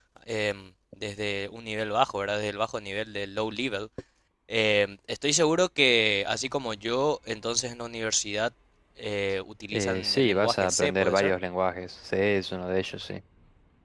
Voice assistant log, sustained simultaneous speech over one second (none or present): present